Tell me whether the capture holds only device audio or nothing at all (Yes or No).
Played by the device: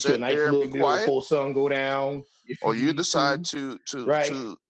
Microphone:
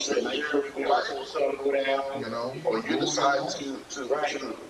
No